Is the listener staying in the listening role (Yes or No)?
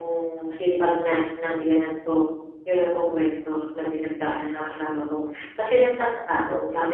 Yes